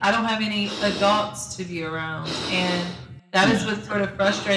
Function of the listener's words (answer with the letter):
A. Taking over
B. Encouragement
B